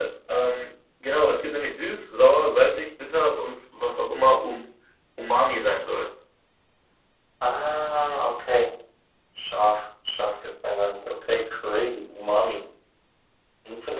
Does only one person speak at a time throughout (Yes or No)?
Yes